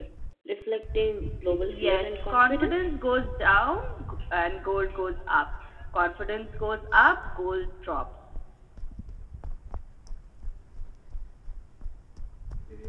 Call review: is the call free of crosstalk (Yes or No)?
No